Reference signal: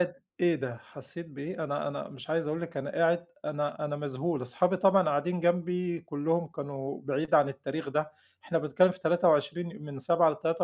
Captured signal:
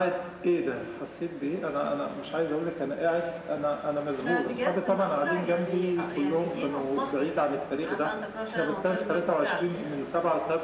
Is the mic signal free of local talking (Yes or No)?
No